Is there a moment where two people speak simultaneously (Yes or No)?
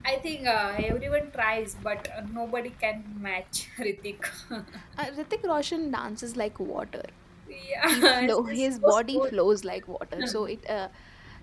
Yes